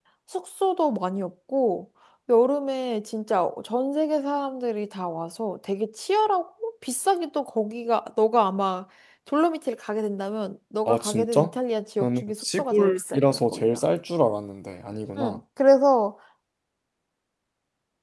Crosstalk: present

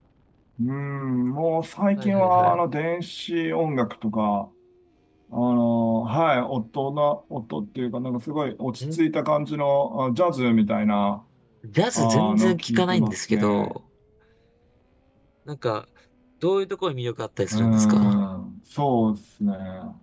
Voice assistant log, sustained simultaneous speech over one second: present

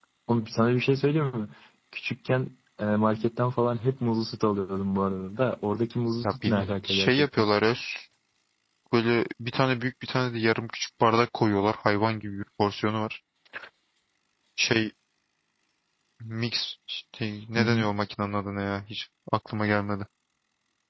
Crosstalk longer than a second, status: present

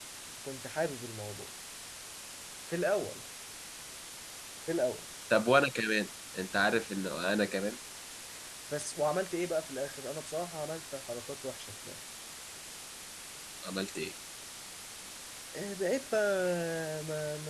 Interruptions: none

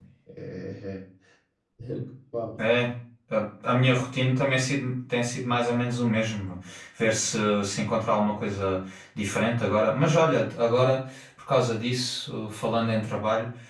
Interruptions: none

